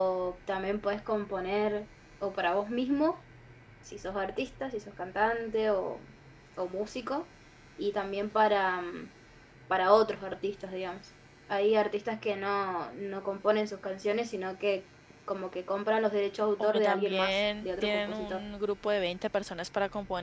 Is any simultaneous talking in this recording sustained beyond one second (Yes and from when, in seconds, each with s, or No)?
Yes, from 16.6 s